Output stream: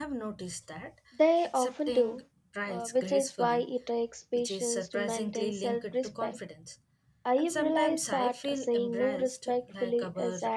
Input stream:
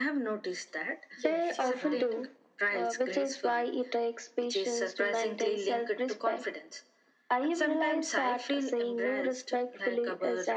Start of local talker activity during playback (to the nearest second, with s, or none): 1 s